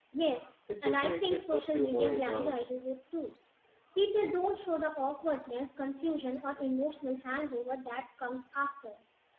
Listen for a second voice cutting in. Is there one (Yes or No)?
Yes